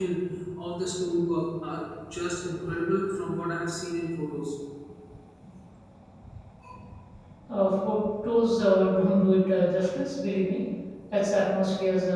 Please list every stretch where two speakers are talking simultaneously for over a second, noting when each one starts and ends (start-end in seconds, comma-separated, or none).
none